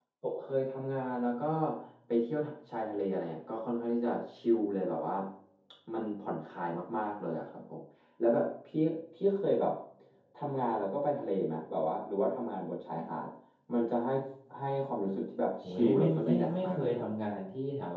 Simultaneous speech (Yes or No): Yes